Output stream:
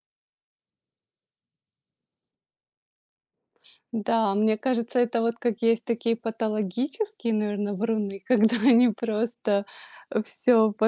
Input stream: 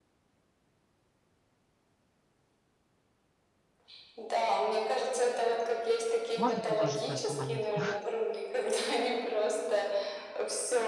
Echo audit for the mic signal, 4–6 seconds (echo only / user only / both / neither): echo only